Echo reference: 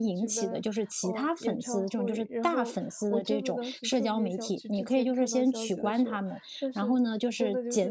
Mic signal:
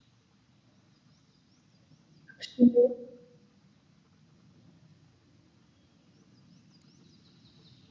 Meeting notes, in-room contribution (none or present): present